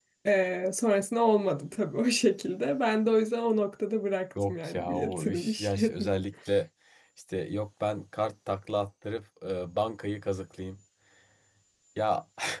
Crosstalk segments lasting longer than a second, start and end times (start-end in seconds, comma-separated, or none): 4.5-6.1